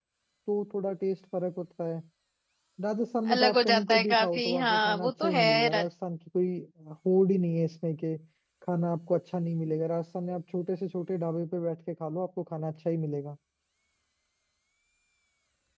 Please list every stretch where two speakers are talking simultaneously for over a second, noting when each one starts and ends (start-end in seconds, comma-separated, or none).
3.3-5.8